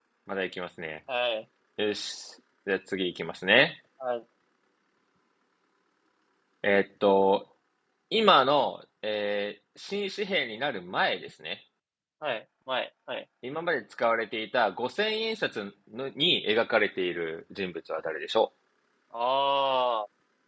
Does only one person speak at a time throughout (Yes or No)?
Yes